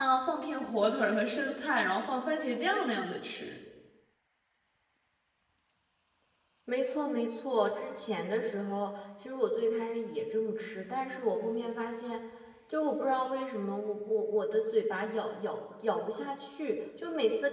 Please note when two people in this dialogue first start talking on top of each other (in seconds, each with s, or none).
none